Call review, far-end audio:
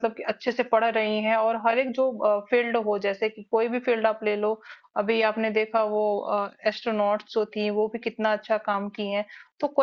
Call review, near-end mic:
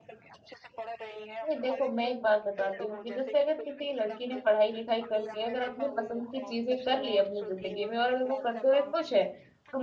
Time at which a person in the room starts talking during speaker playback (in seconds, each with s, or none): 1.4 s